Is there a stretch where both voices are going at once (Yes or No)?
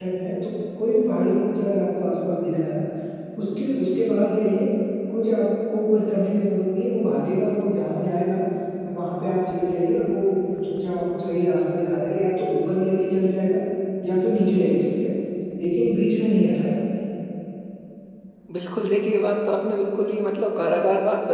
No